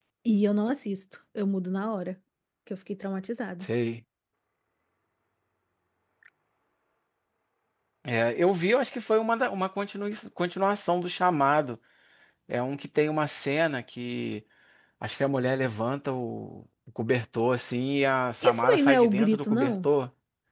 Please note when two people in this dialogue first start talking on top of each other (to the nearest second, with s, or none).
18 s